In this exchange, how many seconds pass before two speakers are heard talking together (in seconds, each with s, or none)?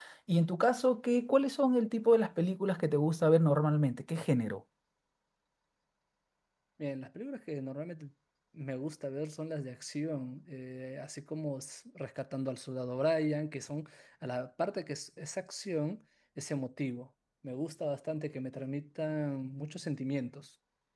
none